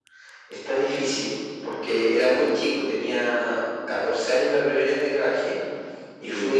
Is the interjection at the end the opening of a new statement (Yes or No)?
No